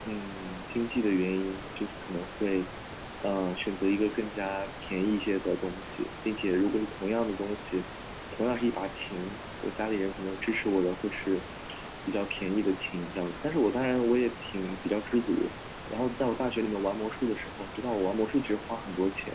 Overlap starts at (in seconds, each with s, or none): none